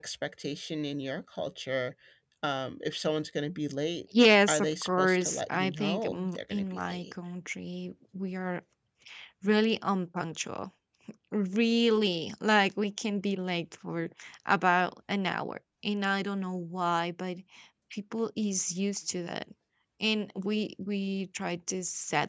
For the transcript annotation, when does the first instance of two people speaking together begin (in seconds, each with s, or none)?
4.5 s